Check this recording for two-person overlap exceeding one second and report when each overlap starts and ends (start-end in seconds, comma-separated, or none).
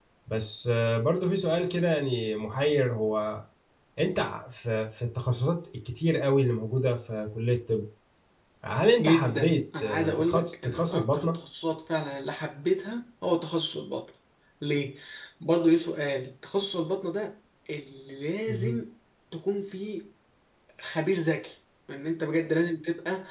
9.0-11.4